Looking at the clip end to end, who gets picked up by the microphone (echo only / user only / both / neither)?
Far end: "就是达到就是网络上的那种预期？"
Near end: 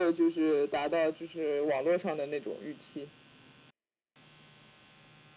echo only